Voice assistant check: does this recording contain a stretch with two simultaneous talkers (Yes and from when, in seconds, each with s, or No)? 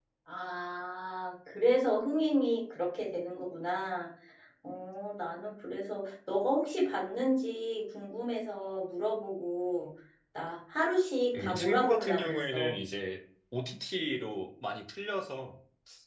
Yes, from 11.3 s